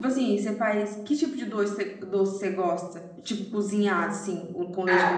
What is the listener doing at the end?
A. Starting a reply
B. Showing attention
A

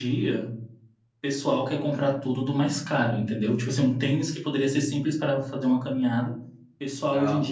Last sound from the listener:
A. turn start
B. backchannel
B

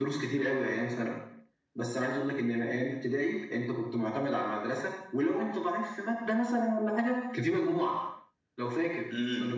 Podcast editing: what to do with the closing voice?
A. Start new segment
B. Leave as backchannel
A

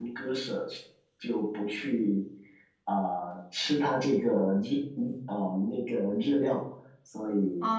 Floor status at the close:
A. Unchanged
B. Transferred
B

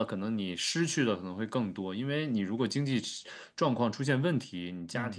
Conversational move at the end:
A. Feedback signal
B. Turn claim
A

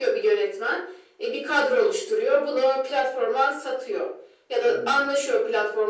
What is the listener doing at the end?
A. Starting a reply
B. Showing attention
B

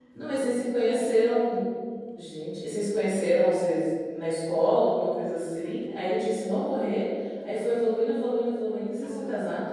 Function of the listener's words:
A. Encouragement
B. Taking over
B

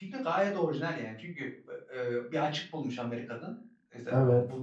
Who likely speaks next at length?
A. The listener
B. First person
B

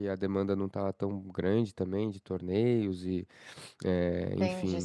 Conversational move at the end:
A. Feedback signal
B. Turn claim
B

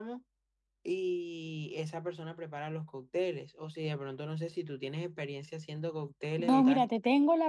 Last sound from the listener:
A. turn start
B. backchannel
A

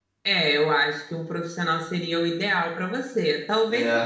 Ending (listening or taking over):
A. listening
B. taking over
A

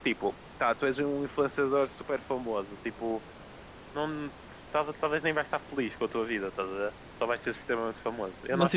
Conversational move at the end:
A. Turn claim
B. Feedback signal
A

